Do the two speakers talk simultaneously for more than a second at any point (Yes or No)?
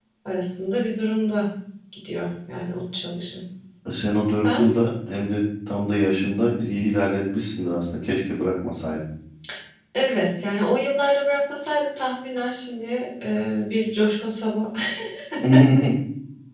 No